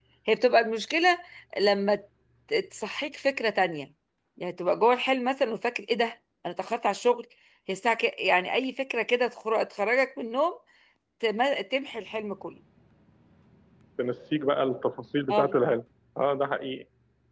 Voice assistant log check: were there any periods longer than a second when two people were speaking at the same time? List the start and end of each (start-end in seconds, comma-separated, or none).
none